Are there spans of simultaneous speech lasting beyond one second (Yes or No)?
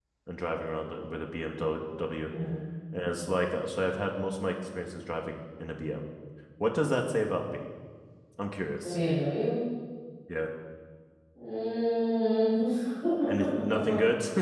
No